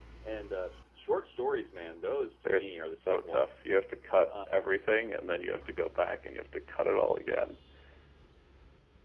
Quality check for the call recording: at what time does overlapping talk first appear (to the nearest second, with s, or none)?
2 s